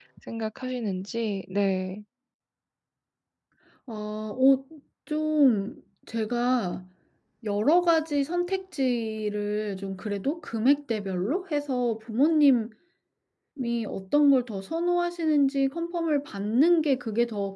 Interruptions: none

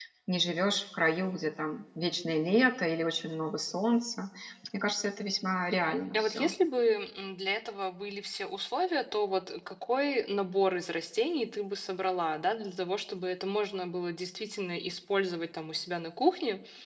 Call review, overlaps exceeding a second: none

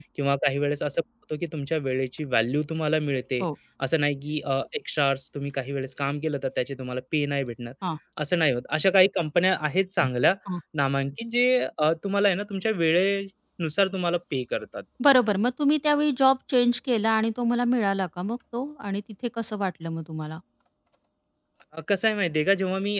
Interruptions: none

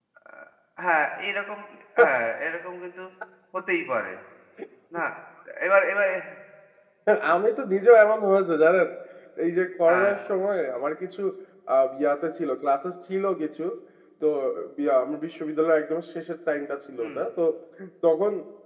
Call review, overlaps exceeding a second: none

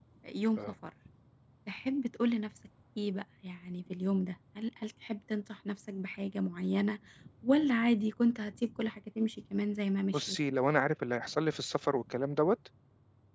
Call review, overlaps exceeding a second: none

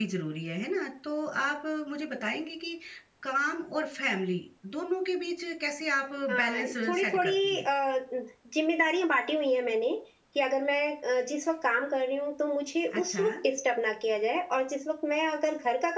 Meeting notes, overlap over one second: present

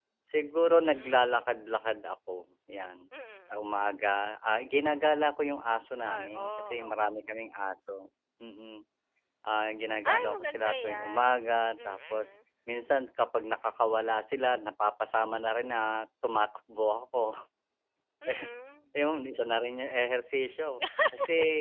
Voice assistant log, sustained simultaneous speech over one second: present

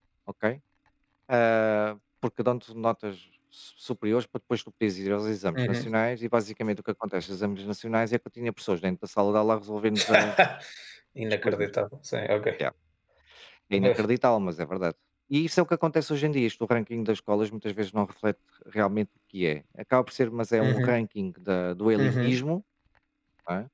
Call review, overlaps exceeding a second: none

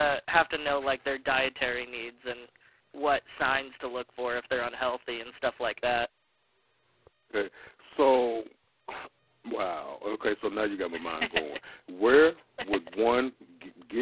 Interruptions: none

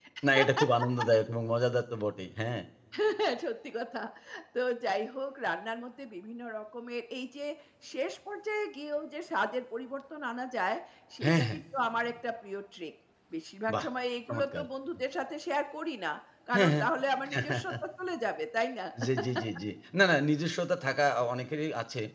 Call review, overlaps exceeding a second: none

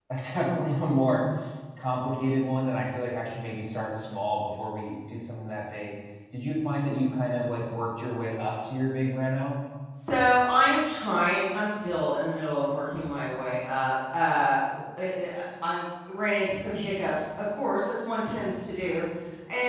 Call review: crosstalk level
none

